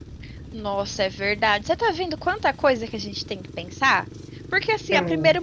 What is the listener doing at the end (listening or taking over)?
listening